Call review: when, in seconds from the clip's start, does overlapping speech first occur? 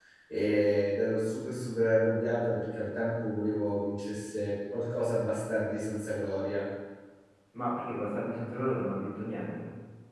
none

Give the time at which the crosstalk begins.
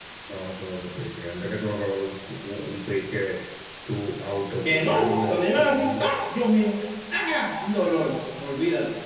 4.7 s

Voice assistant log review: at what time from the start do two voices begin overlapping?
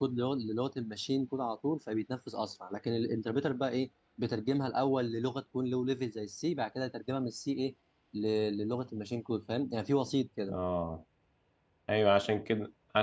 none

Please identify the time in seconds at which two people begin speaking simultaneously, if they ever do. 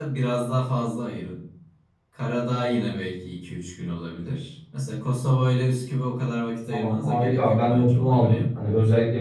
6.7 s

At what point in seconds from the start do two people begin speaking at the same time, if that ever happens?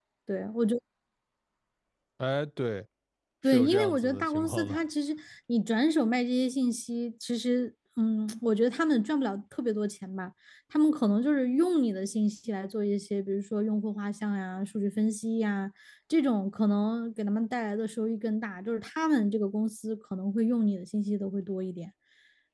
3.4 s

